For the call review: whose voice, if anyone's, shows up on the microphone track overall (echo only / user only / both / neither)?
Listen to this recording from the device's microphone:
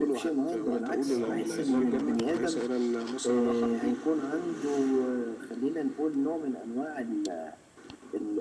both